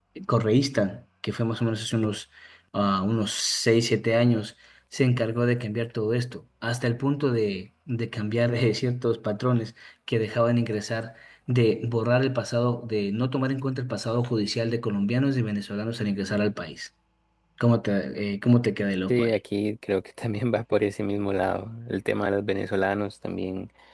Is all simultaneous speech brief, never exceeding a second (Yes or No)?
Yes